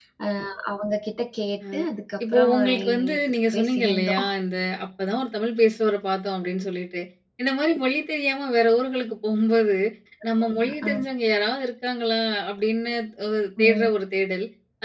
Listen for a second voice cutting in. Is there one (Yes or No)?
Yes